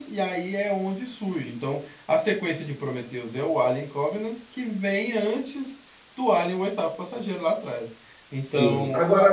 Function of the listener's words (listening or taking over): taking over